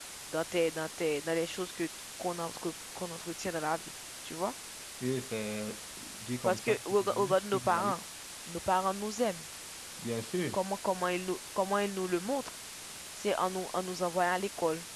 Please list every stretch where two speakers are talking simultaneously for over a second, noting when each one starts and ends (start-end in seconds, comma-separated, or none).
6.4-7.9